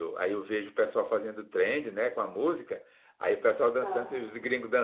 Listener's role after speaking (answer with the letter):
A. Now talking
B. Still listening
B